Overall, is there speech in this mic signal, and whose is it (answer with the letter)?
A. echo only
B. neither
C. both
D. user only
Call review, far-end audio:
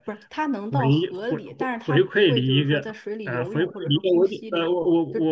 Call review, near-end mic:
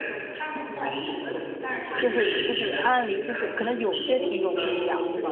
C